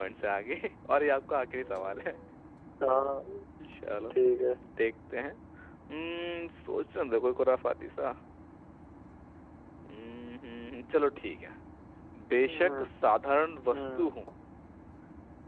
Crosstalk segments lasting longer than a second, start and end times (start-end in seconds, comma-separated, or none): none